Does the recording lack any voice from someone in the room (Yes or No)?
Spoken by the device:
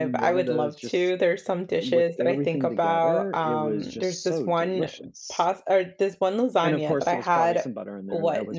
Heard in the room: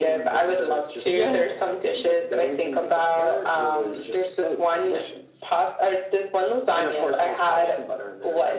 No